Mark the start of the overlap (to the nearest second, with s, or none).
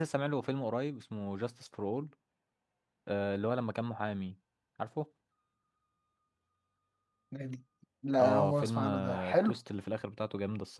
8 s